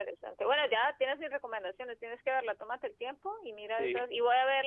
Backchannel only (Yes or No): Yes